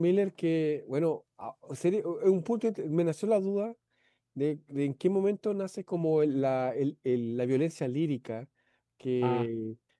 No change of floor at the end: Yes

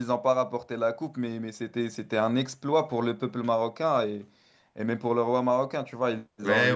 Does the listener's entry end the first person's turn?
Yes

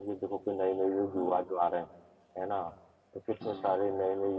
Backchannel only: Yes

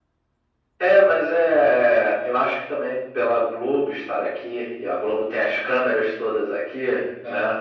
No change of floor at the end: Yes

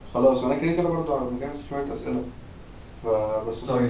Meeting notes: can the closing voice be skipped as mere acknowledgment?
Yes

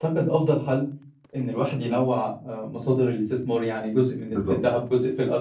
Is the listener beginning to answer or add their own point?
No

